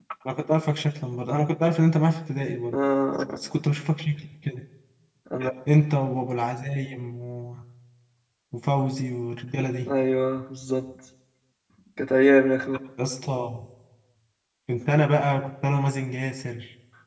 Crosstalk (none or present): none